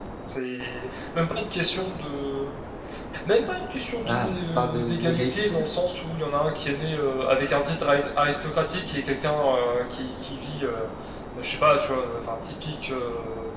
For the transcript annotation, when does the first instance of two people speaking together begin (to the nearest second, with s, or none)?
4 s